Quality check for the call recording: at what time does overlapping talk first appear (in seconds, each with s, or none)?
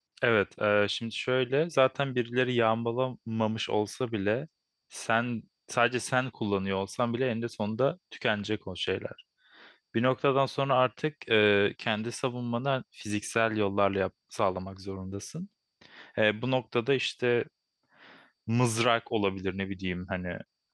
none